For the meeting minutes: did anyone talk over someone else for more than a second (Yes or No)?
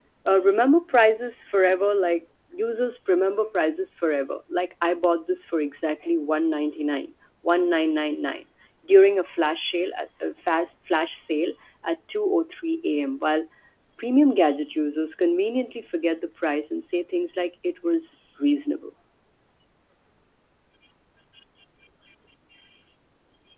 No